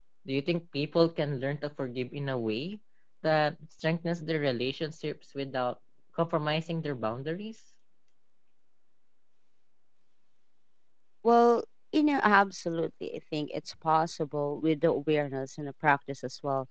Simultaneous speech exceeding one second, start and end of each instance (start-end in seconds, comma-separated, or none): none